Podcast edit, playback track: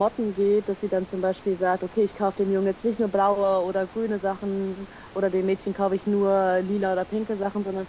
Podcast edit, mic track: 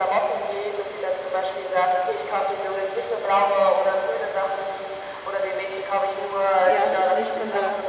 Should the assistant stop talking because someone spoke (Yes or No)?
Yes